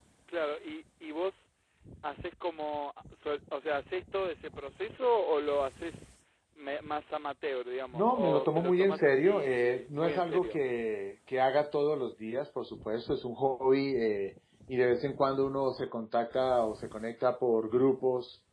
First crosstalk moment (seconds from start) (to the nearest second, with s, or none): 8 s